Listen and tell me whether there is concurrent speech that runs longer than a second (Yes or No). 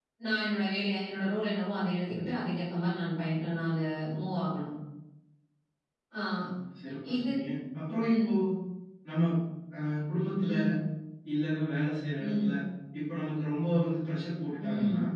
No